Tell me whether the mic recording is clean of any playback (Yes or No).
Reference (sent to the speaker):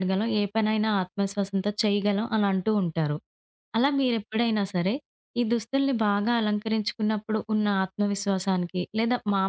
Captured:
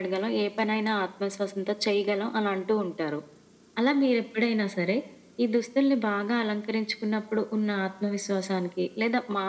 No